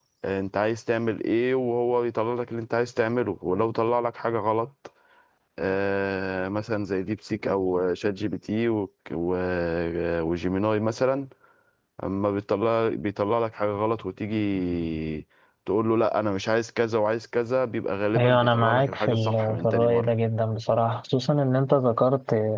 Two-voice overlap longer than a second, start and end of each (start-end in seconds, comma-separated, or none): 18.1-20.1